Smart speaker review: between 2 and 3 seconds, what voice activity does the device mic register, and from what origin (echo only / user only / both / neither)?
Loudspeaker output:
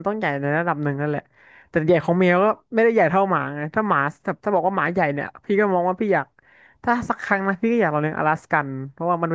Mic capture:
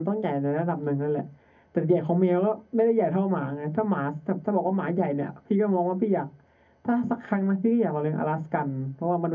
echo only